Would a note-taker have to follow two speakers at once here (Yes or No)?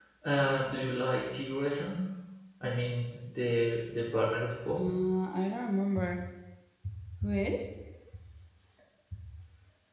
No